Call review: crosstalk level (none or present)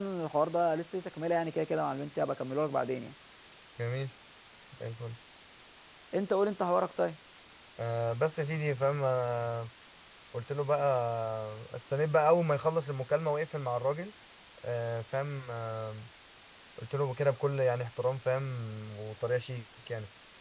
none